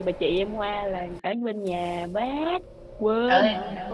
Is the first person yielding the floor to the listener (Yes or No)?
Yes